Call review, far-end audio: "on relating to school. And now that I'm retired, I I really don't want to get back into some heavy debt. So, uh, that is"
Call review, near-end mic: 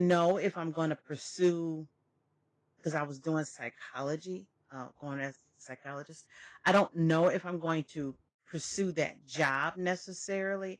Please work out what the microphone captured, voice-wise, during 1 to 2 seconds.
user only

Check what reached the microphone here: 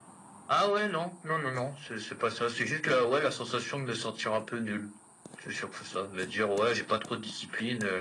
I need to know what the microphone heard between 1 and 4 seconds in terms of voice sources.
echo only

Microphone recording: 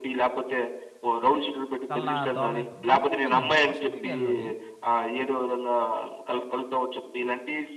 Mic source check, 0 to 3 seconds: both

